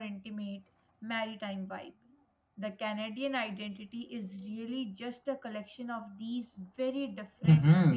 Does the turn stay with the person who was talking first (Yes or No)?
No